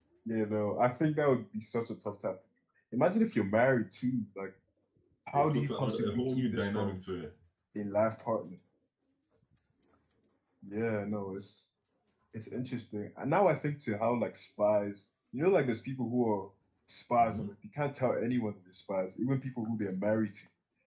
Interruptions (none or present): present